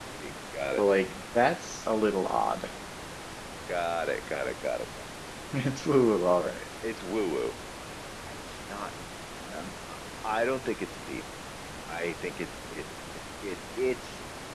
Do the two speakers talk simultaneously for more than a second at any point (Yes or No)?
No